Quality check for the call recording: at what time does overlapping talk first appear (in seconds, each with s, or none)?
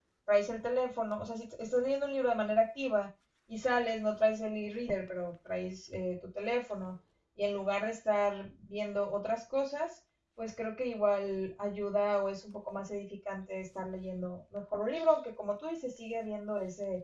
none